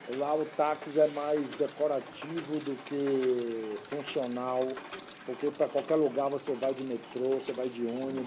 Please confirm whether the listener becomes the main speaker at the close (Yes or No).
No